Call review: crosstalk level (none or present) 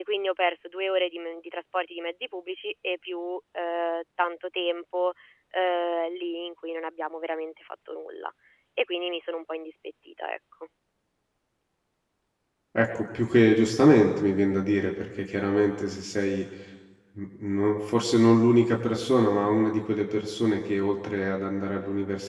none